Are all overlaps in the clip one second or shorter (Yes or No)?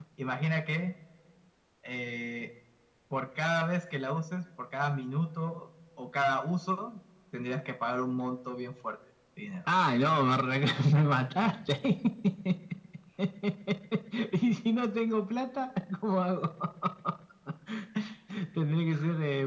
Yes